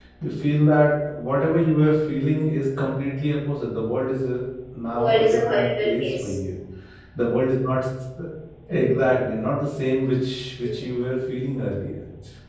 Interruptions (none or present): present